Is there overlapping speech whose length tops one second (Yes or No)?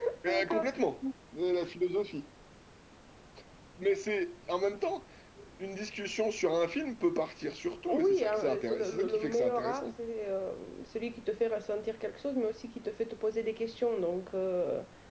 Yes